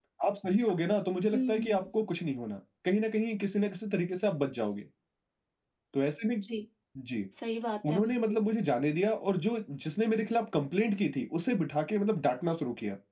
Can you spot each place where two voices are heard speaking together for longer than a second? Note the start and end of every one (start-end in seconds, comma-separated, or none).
none